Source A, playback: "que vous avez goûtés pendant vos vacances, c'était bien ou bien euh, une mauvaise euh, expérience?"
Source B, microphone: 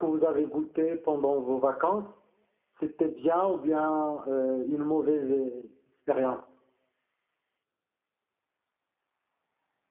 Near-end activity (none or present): none